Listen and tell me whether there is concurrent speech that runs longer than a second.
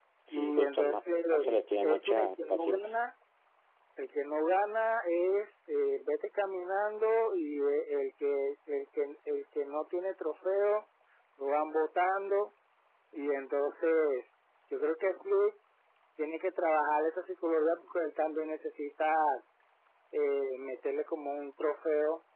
Yes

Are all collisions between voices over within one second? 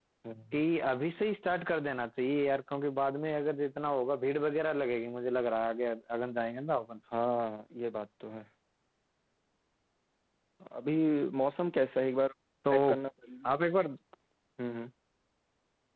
Yes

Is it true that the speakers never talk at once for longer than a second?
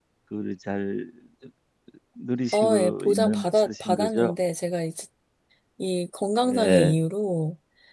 No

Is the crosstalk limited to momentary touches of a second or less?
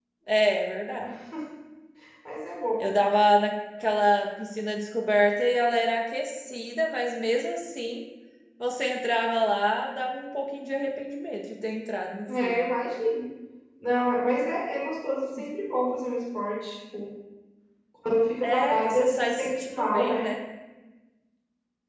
No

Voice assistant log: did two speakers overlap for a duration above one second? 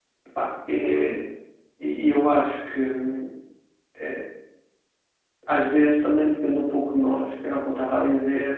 No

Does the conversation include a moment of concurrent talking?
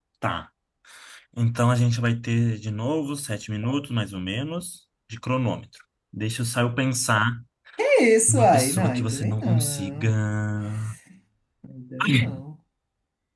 Yes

